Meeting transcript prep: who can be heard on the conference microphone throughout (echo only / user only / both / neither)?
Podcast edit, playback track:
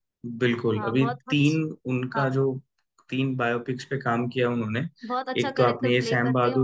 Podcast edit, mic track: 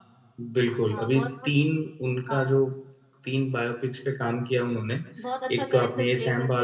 echo only